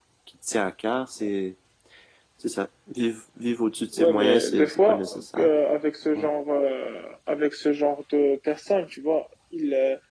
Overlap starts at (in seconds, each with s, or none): 4.0 s